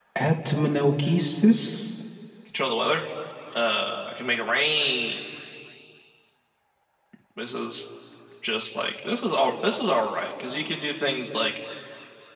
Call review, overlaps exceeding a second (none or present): none